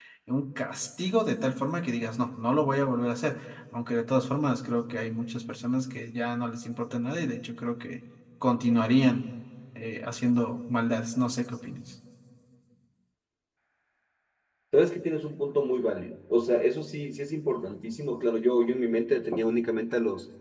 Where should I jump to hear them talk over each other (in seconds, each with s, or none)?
none